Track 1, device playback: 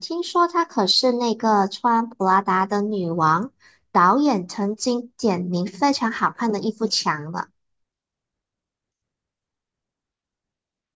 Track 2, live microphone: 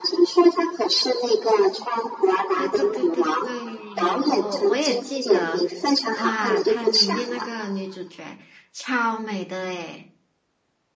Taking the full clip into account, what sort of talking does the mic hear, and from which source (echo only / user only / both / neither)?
both